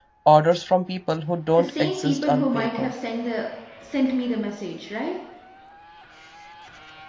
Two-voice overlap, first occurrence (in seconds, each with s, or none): 1.6 s